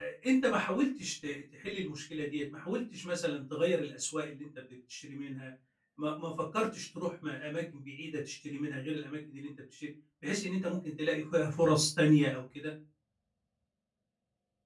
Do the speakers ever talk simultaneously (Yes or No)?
No